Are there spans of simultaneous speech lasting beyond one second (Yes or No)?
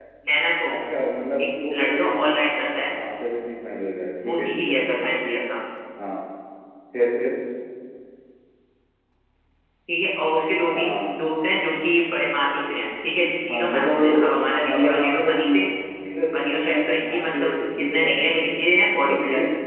Yes